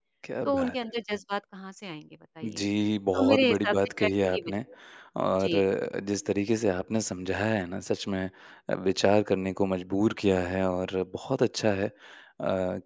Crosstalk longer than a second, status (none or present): present